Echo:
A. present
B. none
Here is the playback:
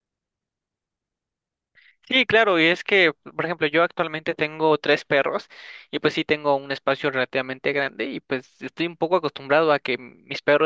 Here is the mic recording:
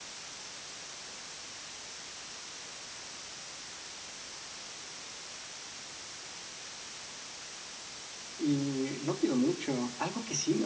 B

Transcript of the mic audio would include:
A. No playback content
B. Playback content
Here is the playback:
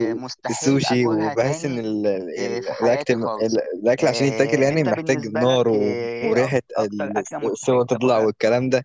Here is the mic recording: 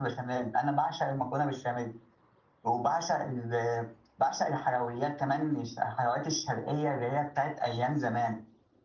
A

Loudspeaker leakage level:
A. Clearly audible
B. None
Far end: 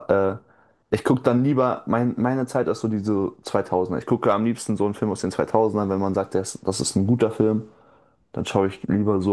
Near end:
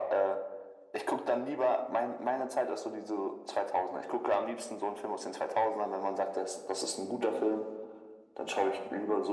A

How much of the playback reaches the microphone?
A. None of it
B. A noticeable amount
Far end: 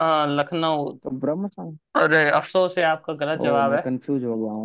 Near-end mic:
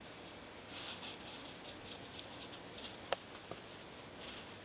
A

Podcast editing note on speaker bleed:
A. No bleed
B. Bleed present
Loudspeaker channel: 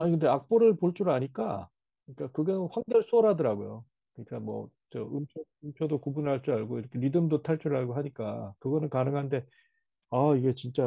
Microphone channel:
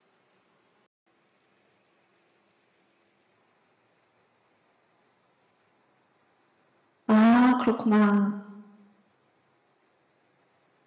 A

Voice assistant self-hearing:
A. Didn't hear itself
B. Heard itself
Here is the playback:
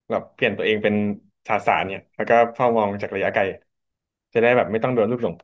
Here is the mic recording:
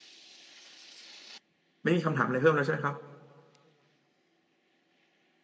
A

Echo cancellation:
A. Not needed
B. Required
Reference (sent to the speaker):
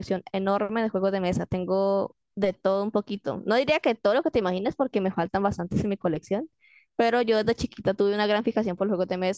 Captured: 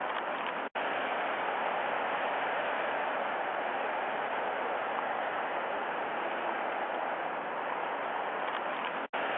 A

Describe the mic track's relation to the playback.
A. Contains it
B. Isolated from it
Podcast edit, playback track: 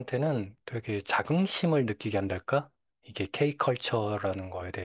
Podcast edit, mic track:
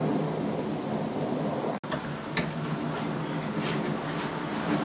B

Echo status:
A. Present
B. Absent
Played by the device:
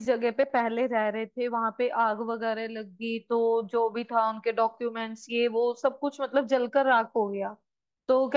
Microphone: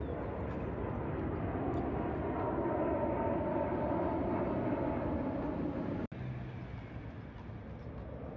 B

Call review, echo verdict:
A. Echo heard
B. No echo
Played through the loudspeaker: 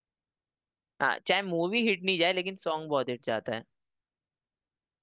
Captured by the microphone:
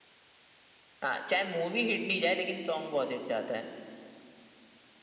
A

